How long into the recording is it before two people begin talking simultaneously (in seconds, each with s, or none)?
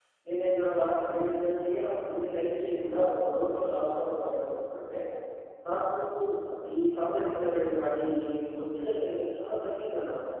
none